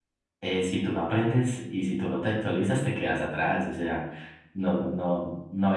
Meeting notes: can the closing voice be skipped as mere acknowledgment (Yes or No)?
Yes